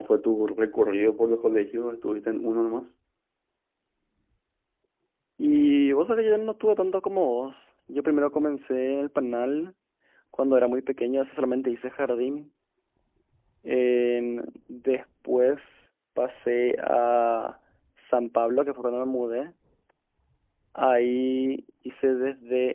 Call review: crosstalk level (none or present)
none